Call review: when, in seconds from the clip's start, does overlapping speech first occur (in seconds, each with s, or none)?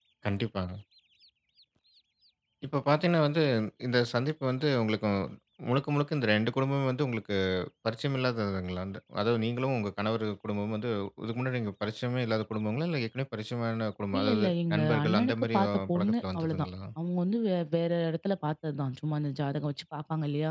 14.1 s